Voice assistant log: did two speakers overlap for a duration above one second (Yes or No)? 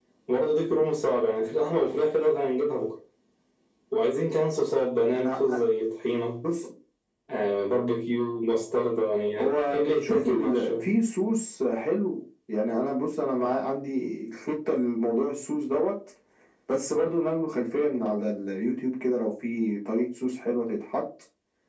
Yes